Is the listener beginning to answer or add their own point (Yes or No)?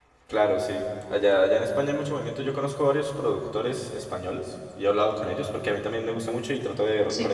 No